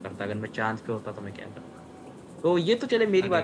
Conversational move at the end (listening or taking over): listening